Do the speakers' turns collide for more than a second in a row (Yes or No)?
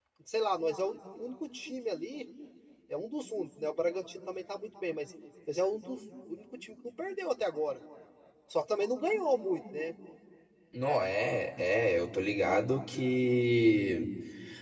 No